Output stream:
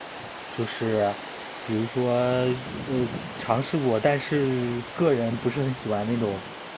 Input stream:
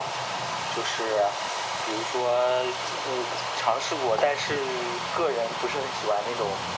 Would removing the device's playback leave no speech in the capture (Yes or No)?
Yes